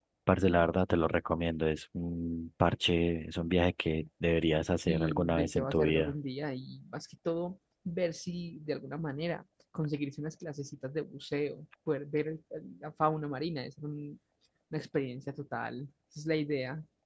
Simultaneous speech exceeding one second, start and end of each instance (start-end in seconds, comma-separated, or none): 4.9-6.1